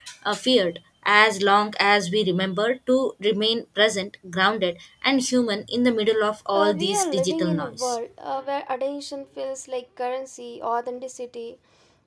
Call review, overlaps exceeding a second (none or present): present